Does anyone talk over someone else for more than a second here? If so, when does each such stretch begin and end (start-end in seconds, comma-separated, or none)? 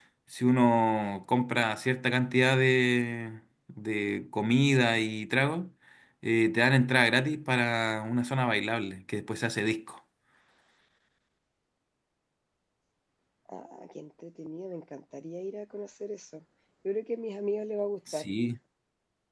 none